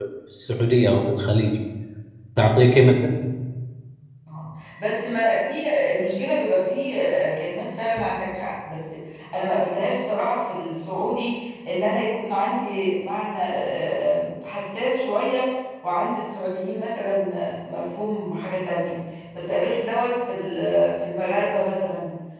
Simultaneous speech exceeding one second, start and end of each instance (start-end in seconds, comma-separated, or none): none